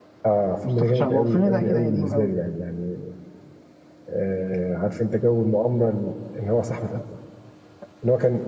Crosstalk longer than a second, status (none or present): present